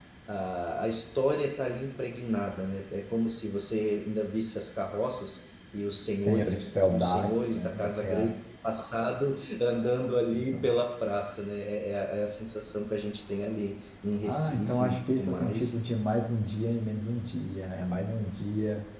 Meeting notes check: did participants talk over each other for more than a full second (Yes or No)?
Yes